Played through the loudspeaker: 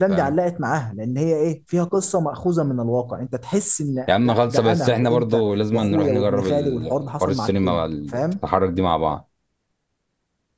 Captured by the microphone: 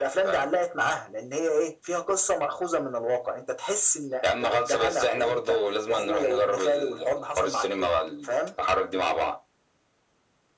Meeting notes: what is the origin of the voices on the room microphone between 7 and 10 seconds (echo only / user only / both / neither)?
echo only